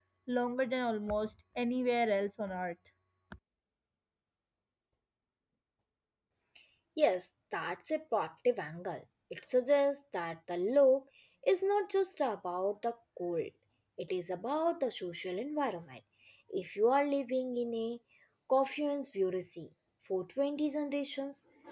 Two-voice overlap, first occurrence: none

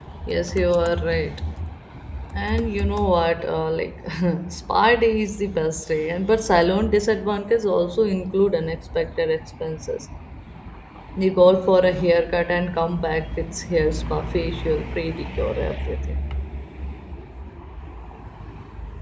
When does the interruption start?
none

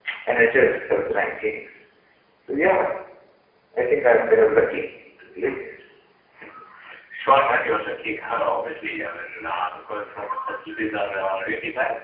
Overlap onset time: none

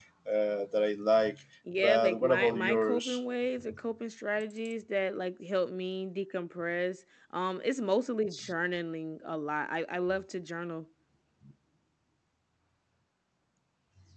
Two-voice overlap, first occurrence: 1.8 s

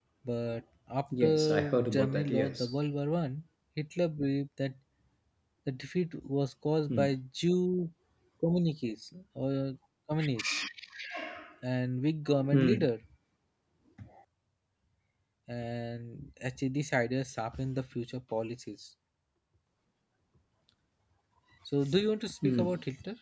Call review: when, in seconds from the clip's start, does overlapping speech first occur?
1.2 s

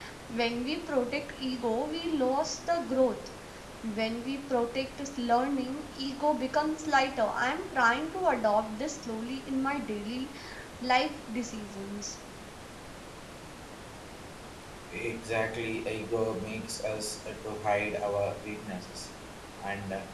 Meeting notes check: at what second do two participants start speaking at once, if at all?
none

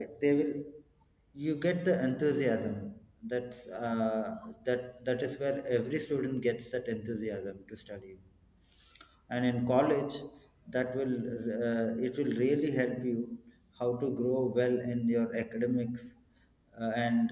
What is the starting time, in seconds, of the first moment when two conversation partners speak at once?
none

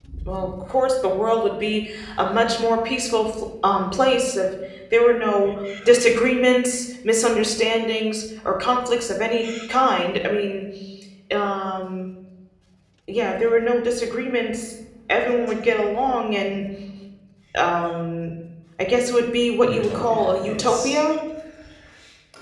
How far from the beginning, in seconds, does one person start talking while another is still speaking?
19.6 s

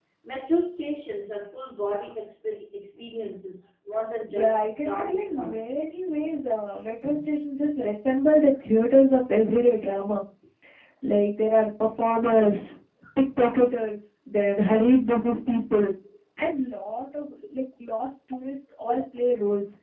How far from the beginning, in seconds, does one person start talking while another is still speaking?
4.3 s

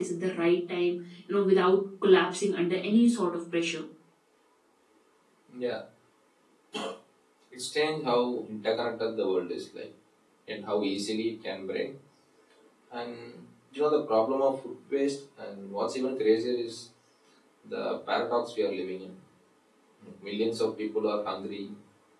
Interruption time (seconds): none

